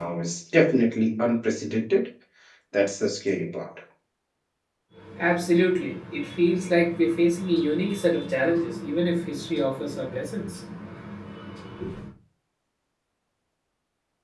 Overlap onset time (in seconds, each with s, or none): none